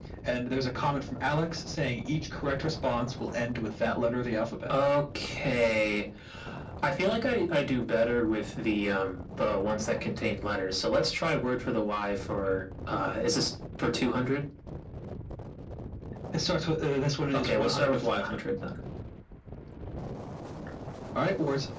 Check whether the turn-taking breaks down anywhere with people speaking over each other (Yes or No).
Yes